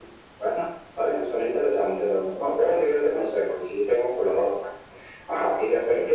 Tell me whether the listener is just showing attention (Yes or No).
Yes